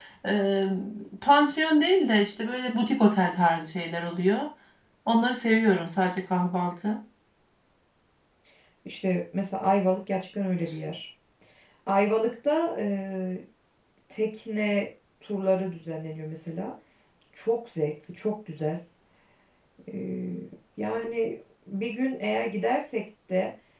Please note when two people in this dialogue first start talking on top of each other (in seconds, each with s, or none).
none